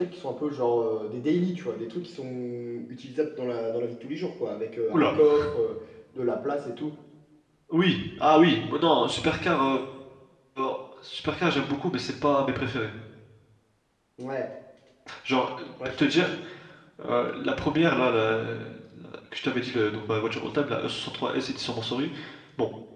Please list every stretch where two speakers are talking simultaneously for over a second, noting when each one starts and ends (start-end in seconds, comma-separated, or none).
none